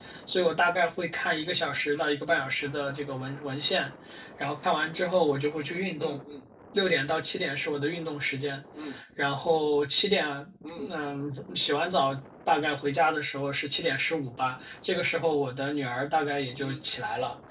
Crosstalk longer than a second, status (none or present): none